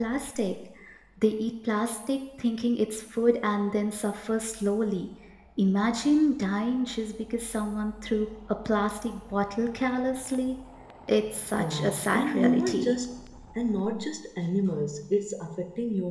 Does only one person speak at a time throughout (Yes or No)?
No